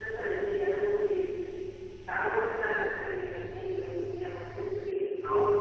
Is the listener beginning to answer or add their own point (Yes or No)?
Yes